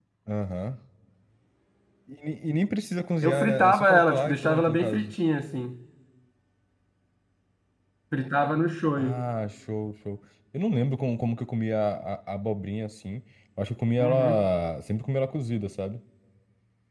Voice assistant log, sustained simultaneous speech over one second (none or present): present